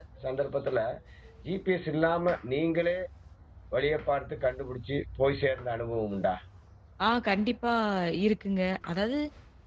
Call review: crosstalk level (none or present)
none